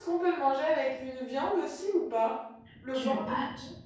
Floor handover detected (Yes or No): Yes